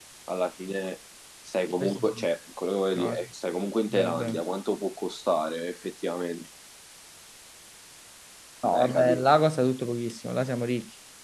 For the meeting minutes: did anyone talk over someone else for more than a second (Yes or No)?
No